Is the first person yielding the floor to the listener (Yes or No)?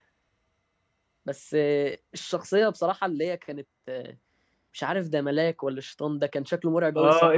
Yes